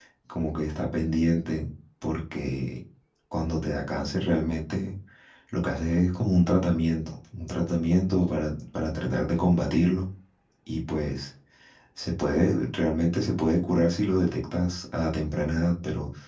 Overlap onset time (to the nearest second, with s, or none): none